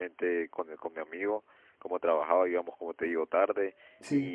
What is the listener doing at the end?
listening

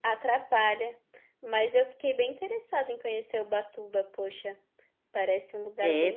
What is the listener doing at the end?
taking over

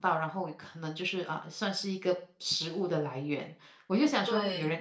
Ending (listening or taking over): listening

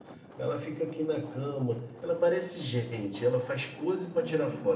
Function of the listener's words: taking over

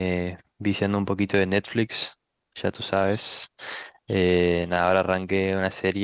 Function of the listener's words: listening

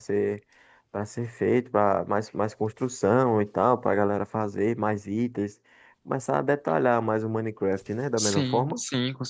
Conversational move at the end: taking over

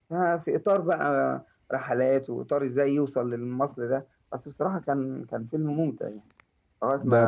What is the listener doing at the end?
taking over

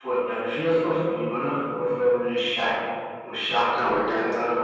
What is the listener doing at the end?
taking over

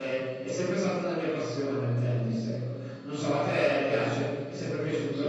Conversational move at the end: taking over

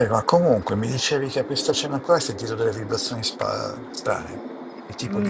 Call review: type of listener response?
taking over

